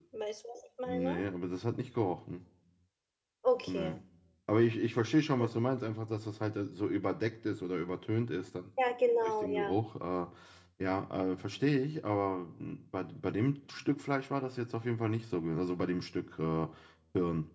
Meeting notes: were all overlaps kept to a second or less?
Yes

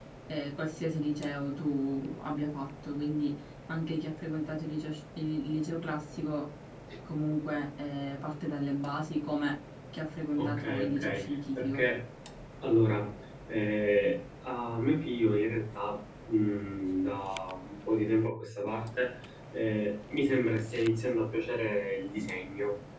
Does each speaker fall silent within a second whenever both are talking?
No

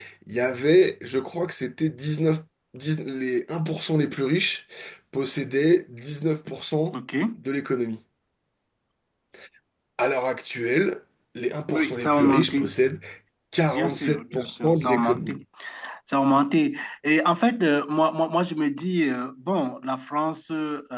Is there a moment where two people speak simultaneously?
Yes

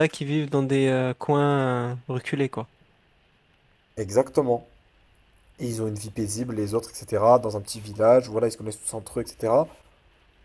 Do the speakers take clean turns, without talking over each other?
Yes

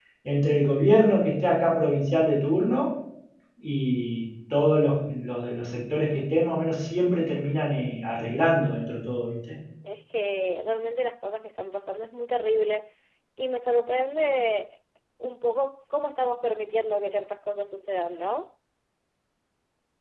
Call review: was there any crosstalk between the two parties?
No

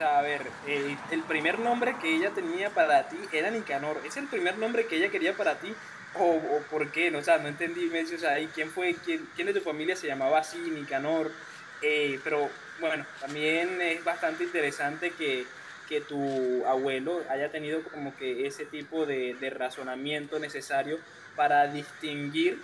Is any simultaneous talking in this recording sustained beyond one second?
No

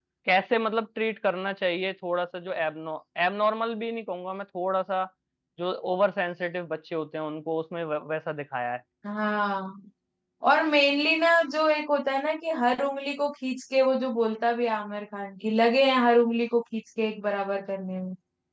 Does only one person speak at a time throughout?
Yes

